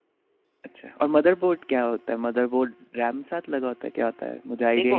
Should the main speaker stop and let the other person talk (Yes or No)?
Yes